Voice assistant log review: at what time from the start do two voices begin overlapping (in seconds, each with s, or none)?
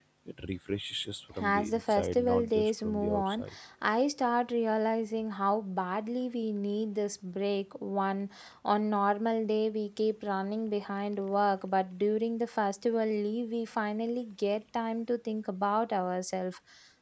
1.4 s